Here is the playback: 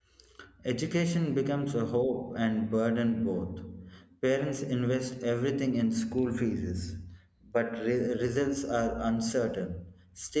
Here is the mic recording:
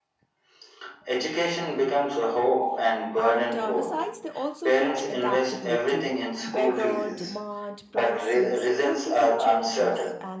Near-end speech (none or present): present